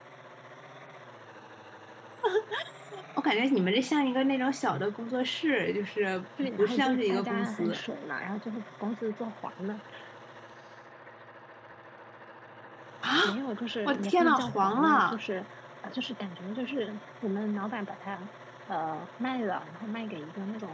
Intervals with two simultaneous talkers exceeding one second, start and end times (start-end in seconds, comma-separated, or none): 6.6-7.8, 13.8-15.2